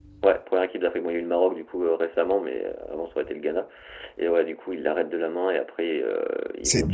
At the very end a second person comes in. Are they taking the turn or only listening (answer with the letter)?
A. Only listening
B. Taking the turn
B